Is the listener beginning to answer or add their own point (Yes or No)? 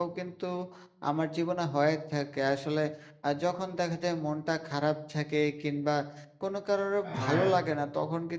No